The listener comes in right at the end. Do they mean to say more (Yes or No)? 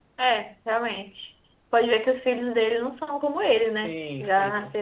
Yes